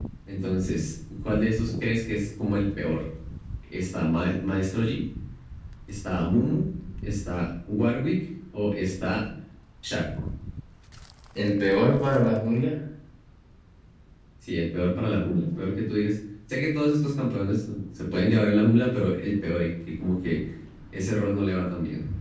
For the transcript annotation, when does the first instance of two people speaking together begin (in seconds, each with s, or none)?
none